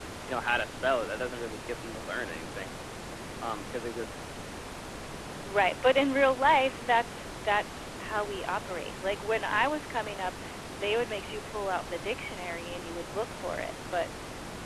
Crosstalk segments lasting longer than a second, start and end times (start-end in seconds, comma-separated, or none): none